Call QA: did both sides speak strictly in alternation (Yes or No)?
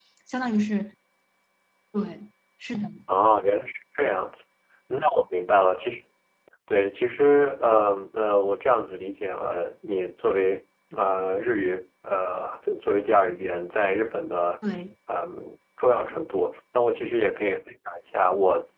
Yes